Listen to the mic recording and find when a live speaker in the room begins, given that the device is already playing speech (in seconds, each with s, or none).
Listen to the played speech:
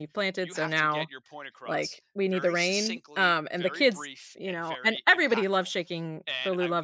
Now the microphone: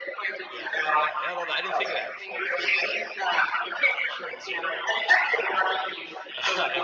0.5 s